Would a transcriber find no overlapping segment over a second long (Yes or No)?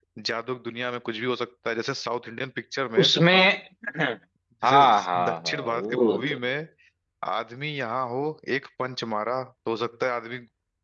No